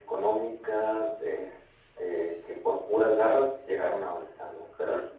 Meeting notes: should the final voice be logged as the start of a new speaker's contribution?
Yes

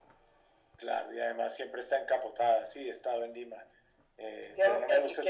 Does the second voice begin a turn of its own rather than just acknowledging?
Yes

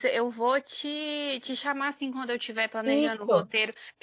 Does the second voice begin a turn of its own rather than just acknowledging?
No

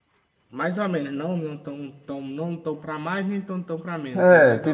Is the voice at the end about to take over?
Yes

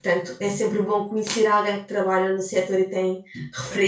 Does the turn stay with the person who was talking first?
No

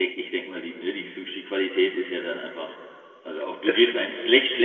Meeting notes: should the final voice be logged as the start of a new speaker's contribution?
No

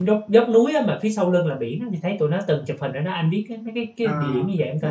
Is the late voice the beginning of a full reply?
Yes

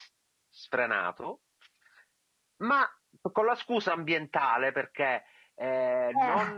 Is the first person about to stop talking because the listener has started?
No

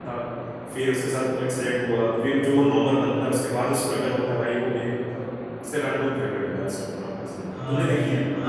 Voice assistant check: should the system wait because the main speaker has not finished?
No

